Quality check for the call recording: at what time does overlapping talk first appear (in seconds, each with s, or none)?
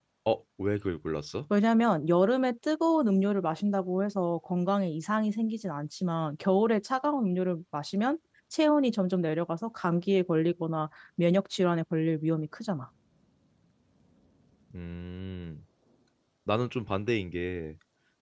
none